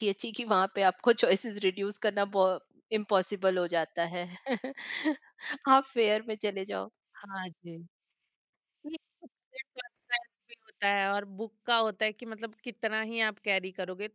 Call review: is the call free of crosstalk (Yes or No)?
Yes